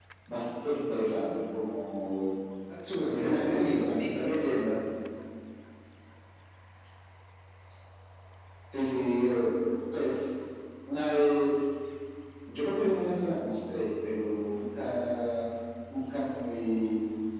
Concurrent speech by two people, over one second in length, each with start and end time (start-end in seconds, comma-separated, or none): 3.1-4.3